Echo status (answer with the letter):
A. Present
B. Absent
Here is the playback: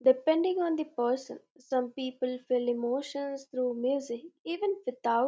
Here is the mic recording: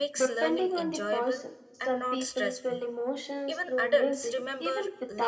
A